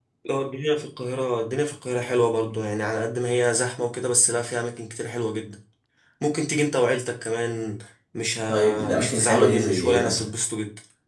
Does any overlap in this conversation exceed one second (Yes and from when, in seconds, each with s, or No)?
Yes, from 8.5 s